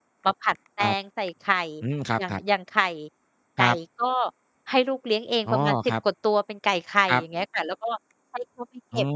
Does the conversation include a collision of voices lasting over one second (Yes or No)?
No